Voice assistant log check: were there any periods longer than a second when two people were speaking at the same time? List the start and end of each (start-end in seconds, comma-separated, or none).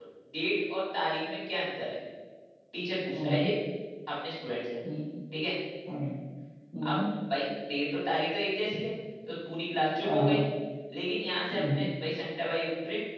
none